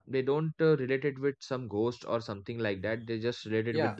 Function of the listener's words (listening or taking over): taking over